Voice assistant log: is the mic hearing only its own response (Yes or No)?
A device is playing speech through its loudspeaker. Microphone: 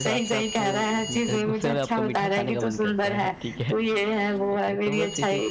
No